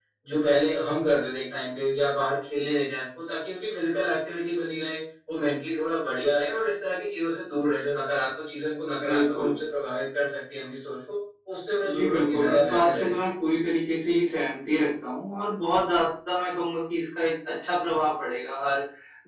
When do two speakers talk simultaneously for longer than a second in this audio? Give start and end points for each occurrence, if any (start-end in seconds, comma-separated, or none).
11.8-13.1